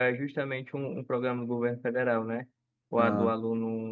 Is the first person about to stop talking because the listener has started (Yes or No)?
No